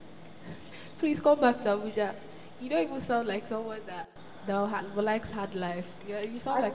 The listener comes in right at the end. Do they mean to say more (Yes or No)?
Yes